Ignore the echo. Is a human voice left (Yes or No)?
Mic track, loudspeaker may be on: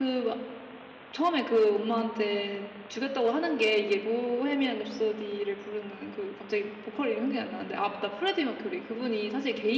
Yes